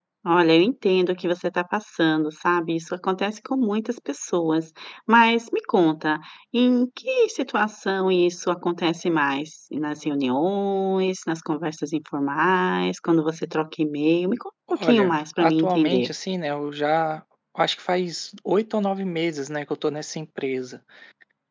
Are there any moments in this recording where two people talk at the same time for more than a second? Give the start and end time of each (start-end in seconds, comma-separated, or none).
14.8-16.1